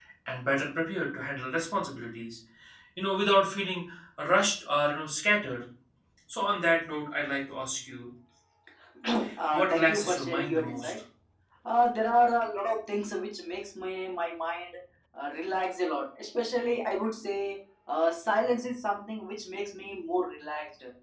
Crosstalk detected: Yes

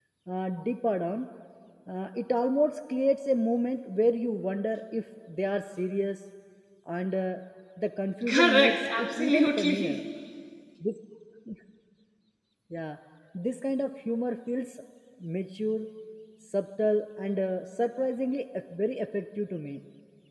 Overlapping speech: Yes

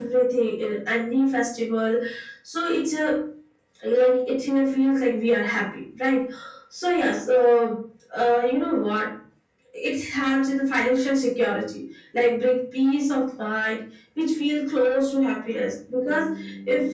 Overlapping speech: No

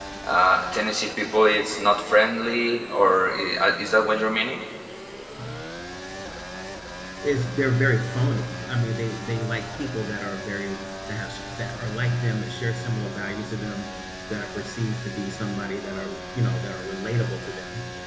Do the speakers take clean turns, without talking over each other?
Yes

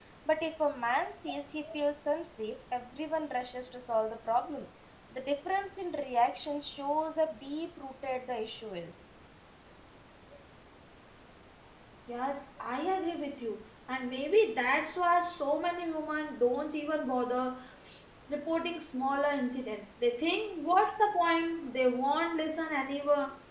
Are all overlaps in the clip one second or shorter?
Yes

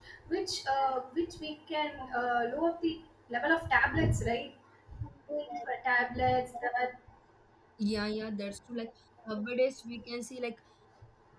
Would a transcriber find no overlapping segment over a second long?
Yes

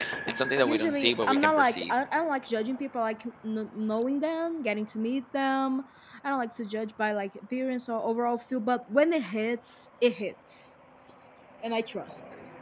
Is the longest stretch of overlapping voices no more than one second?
No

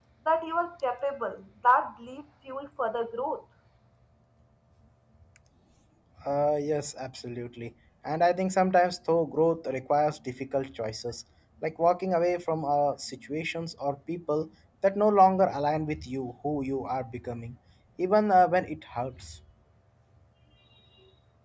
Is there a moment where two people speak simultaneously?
No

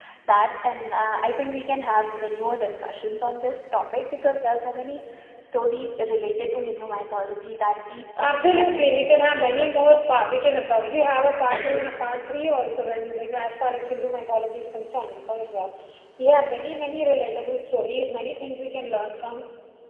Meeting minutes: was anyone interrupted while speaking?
Yes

